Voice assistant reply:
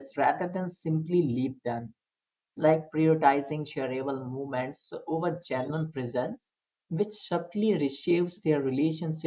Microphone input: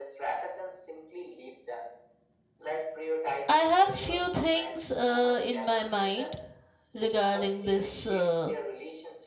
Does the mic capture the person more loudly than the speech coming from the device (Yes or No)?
Yes